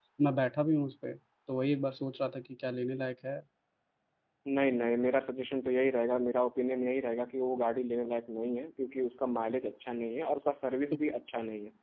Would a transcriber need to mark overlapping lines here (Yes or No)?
No